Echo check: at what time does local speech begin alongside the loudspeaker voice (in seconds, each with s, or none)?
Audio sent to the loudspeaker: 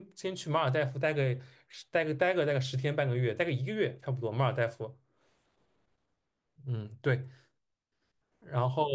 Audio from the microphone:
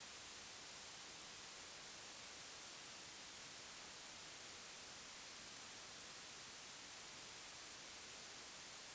none